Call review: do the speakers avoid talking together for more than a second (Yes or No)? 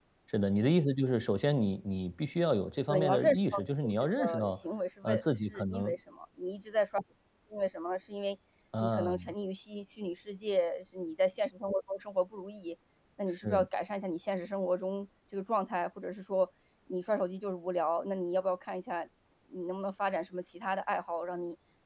No